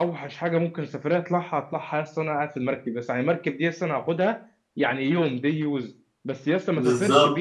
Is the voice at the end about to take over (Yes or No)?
No